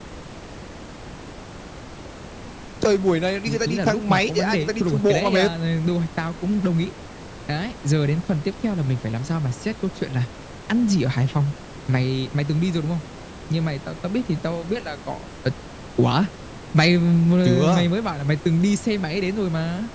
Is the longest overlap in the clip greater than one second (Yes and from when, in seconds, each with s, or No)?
Yes, from 3.5 s